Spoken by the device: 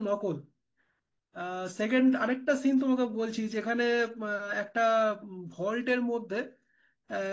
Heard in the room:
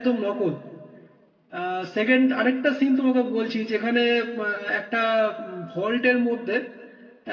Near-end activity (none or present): none